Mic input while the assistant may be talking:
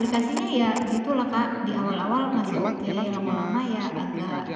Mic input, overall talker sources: both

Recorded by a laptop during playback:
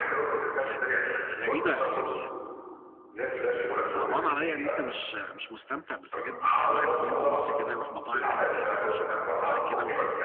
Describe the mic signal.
both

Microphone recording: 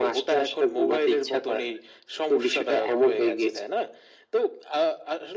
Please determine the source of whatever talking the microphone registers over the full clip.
echo only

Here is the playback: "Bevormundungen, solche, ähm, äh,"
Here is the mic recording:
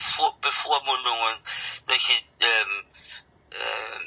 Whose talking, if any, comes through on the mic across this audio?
echo only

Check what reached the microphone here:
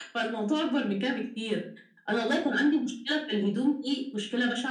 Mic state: echo only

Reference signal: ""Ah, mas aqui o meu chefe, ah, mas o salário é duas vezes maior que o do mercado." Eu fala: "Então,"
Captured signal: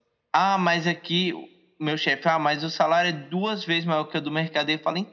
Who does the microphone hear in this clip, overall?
echo only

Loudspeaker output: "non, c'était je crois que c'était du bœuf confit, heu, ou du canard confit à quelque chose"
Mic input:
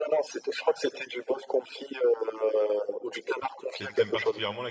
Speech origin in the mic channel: both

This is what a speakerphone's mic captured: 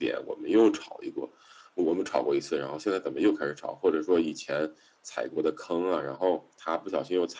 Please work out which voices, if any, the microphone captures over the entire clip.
echo only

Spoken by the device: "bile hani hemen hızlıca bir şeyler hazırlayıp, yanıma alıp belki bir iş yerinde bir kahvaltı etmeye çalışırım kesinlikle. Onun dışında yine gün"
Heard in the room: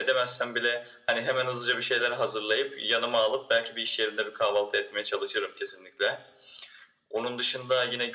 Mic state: echo only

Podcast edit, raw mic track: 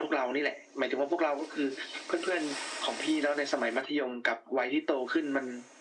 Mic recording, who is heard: echo only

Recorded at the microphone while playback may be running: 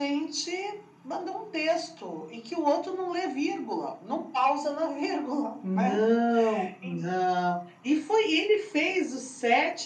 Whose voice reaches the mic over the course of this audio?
both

